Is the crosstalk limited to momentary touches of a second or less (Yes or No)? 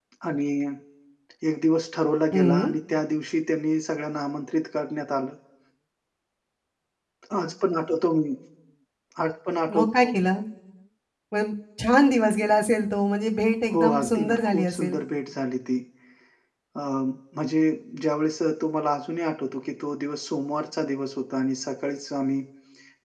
No